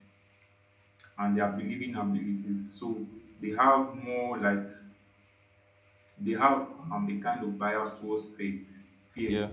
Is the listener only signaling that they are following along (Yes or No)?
Yes